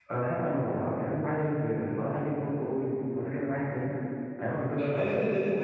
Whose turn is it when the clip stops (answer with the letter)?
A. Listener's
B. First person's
A